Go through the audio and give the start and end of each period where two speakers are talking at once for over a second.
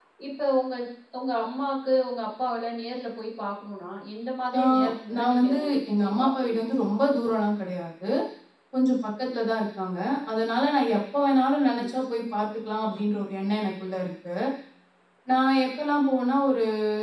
5.2-6.6

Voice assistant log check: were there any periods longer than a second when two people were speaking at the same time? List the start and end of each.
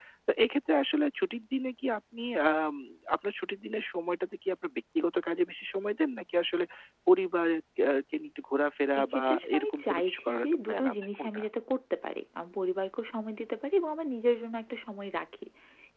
9.0-11.4

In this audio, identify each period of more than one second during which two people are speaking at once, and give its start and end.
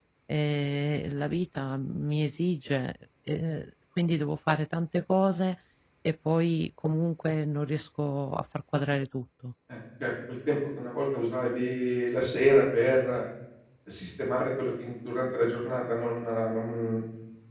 none

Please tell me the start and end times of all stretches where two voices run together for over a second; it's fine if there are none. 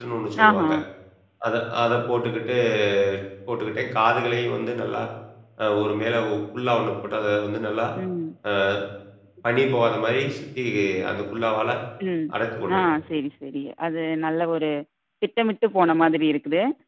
none

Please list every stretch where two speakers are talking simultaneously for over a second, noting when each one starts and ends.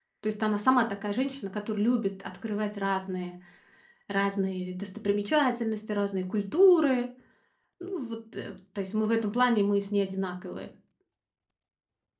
none

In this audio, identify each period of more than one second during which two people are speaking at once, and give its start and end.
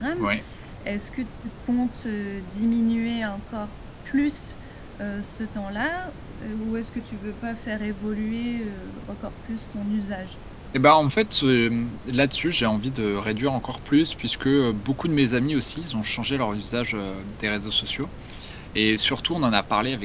none

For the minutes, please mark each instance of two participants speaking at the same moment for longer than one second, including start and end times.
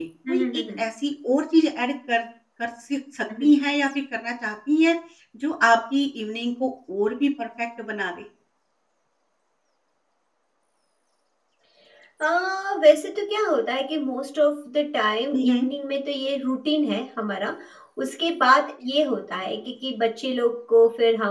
none

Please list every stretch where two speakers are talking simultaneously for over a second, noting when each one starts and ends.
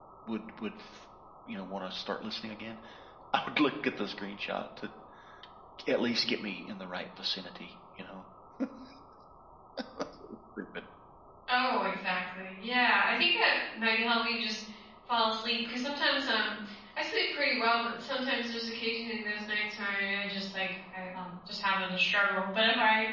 none

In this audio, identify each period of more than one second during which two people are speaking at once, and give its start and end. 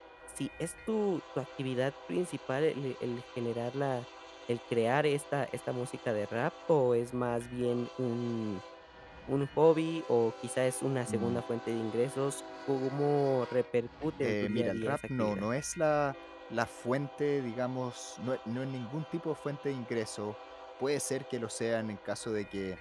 14.2-15.5

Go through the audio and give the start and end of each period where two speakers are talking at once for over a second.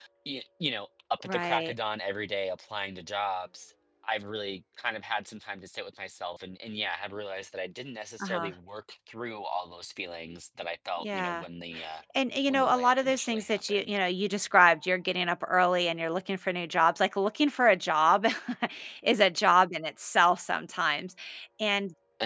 12.5-14.0

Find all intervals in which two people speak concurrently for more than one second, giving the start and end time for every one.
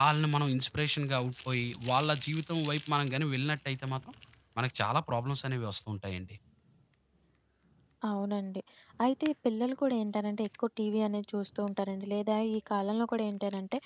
none

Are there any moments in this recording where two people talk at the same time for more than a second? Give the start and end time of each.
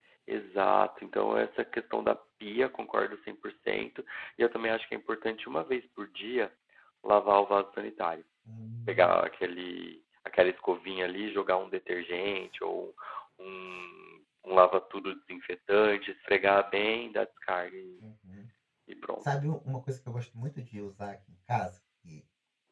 none

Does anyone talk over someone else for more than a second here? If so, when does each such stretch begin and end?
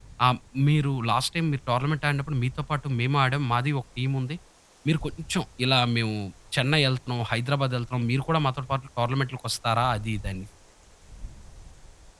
none

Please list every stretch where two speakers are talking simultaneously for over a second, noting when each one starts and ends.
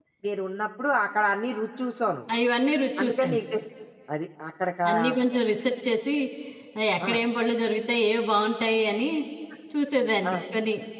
none

